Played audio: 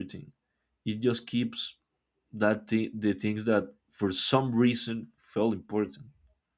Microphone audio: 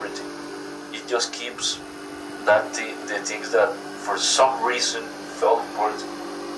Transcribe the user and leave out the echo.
none

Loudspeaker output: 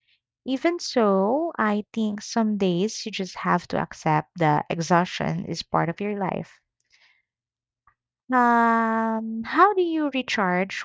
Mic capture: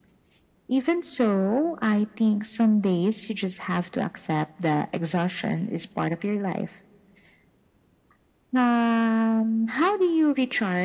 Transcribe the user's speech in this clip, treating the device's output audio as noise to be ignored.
none

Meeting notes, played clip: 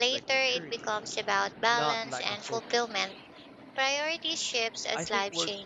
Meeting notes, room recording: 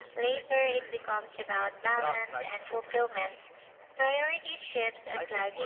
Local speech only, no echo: none

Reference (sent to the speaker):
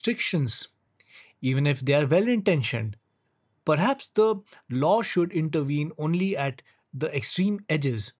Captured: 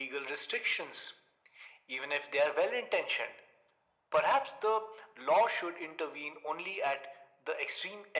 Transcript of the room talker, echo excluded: none

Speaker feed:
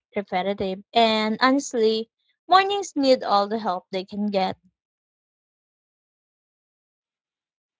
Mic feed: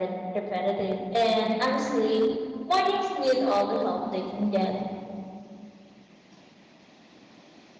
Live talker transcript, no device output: none

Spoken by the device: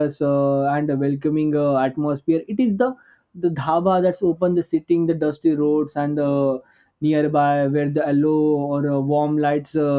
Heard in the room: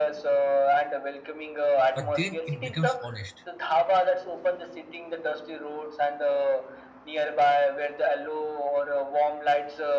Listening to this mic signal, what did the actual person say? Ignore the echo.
but then it becomes honest.

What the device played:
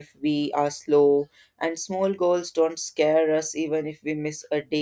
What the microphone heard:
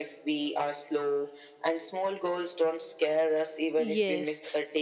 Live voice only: Yes,

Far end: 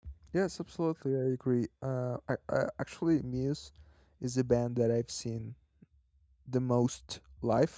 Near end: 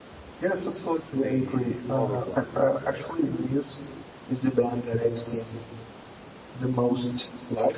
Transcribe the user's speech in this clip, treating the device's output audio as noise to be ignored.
the other one, like the

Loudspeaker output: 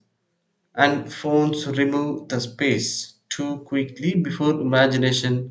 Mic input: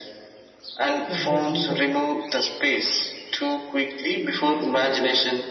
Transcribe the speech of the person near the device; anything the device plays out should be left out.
shift just bigger.

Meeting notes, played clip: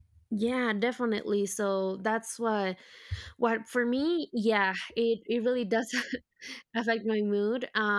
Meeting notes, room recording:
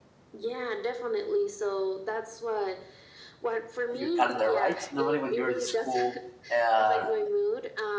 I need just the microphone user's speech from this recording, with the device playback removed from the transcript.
your calendar, right? Normally, when you're in school, uh,

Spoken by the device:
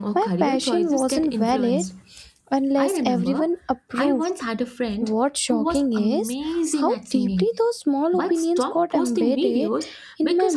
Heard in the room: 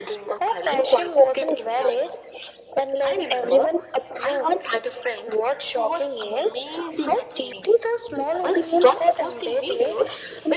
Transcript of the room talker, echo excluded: none

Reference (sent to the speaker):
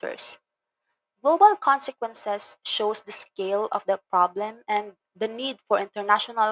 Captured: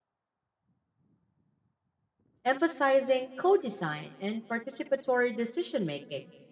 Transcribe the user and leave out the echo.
emphasizing co design and participatory decision making.

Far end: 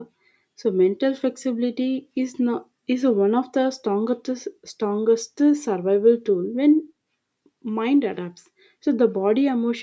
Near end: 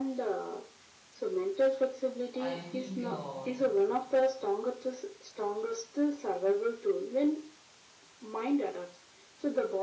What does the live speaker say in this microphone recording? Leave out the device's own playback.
I think uh,

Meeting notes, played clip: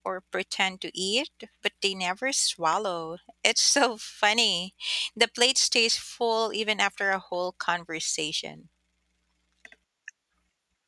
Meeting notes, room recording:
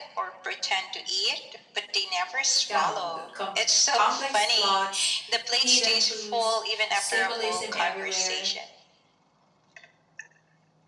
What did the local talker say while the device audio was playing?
dumb. Com- complex plots, hidden clues, symbolism everywhere.

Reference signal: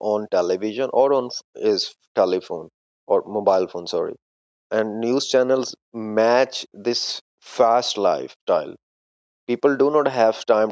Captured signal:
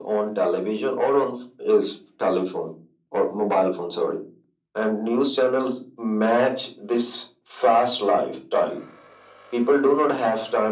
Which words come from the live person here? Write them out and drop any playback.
none

